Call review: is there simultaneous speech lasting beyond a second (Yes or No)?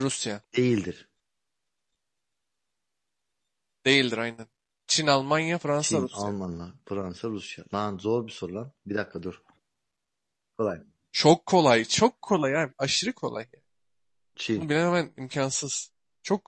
No